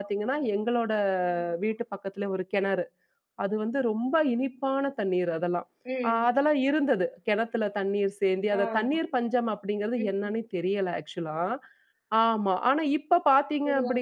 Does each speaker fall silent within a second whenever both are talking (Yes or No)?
Yes